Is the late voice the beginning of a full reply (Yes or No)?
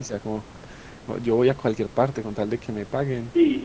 Yes